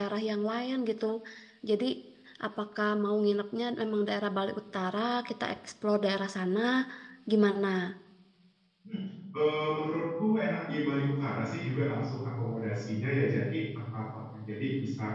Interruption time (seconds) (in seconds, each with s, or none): none